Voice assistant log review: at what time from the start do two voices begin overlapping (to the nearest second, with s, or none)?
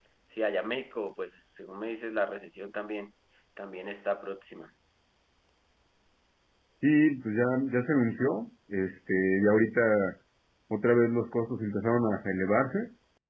none